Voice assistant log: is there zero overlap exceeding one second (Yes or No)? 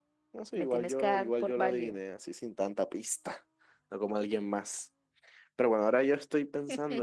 No